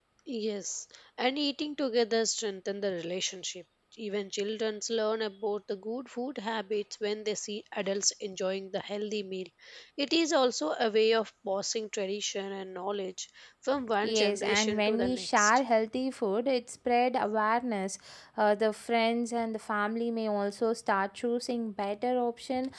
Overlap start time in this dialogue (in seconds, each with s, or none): 14.0 s